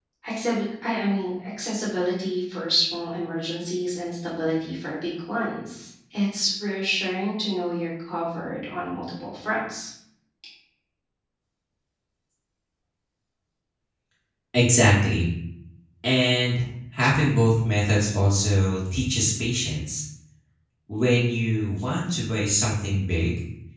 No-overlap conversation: Yes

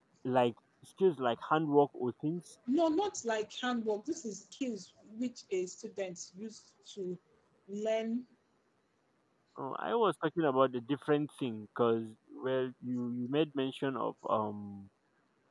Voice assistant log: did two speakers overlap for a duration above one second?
No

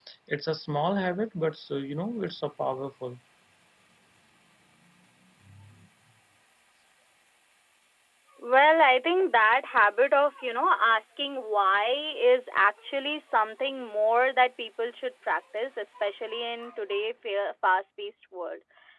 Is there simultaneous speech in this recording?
No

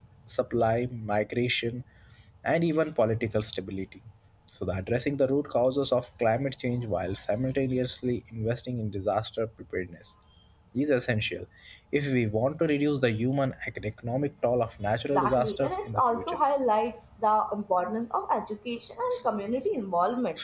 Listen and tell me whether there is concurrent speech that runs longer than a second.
Yes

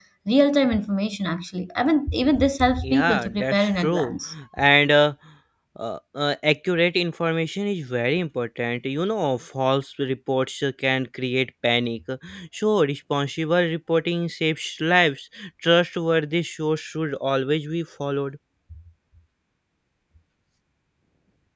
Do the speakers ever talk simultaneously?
Yes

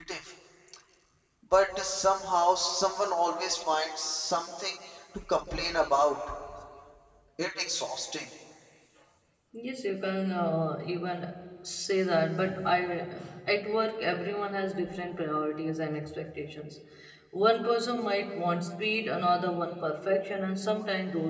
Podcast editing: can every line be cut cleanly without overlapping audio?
Yes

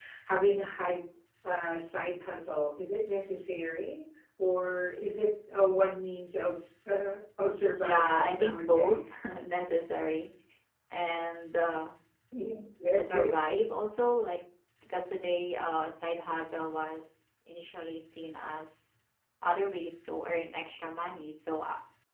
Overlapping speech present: Yes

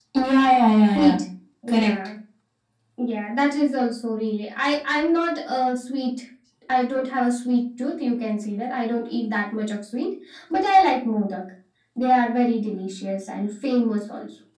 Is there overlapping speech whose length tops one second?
No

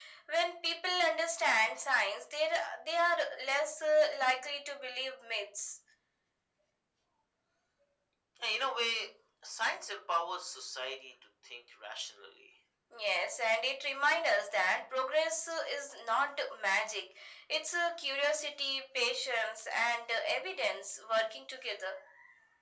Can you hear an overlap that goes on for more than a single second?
No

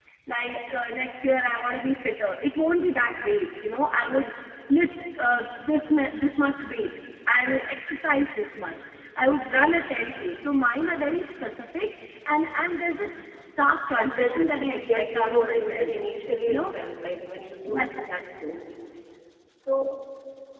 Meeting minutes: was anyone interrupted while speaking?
Yes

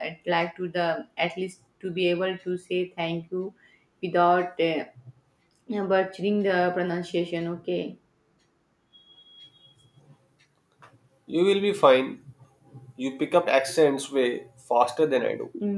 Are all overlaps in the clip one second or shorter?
Yes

